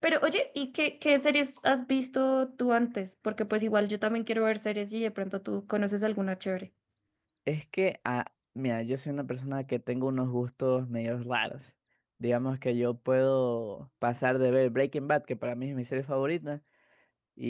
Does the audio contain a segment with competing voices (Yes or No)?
No